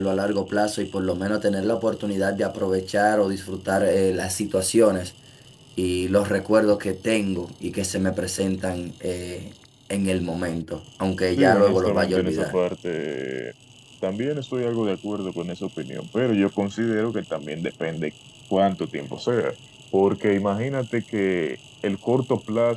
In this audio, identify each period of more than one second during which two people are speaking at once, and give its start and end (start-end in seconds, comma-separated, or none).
11.4-12.6